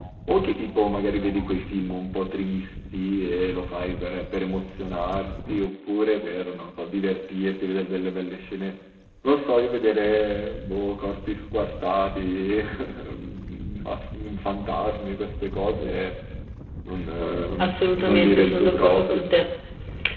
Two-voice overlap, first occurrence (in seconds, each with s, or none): 17.6 s